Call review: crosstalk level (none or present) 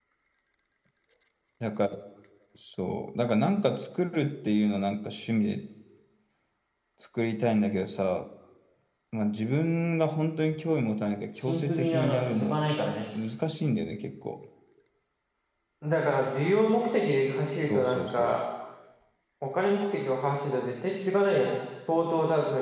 present